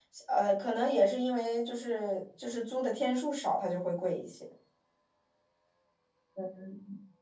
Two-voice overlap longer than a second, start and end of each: none

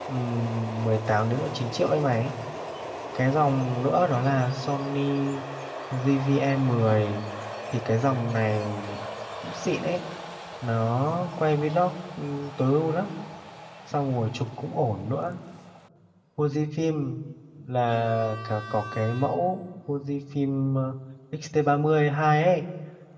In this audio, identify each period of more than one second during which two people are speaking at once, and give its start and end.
none

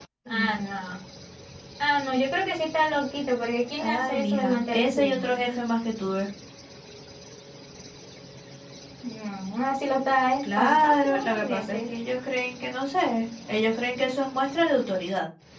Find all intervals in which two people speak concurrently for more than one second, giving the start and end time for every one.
3.8-5.4, 10.4-11.8

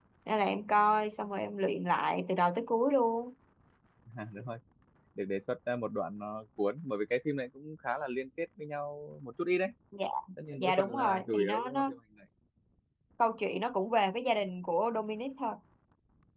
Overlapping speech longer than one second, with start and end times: 10.6-11.9

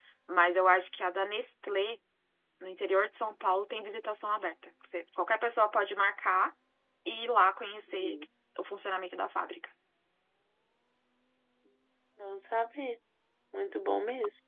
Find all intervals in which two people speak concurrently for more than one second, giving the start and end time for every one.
none

